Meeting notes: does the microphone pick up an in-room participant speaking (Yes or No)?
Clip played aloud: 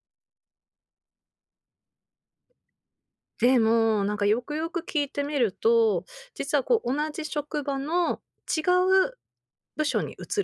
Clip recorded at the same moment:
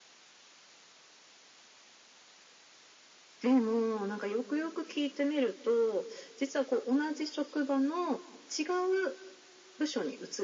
No